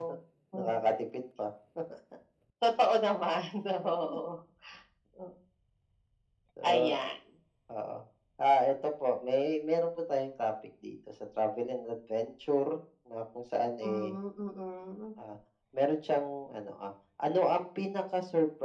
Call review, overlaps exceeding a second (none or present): none